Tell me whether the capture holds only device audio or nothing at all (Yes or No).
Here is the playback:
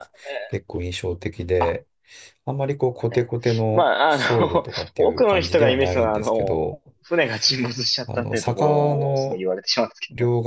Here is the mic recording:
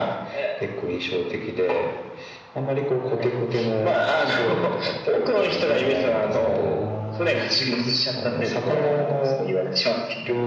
No